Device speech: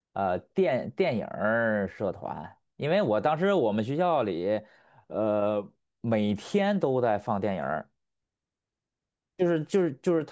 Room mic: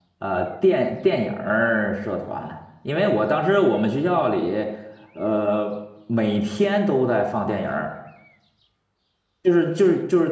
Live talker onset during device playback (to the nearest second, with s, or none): none